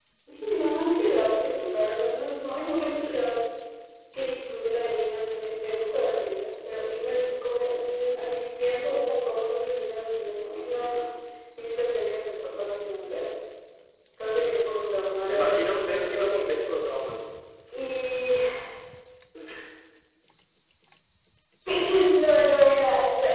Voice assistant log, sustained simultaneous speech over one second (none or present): present